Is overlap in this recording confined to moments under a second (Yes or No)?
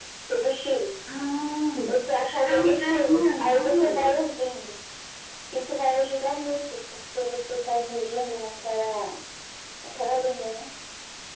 No